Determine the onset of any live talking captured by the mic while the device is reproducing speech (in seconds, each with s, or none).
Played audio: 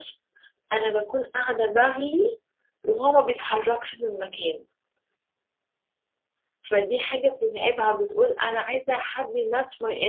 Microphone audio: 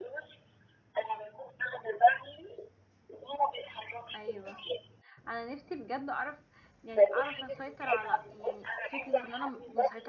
4.2 s